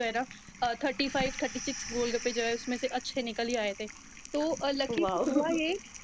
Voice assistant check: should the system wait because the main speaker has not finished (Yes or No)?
Yes